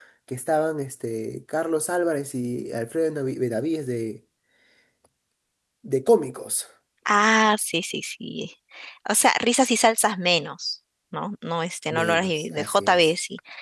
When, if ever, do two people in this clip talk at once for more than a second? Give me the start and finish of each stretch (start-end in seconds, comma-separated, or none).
11.9-13.1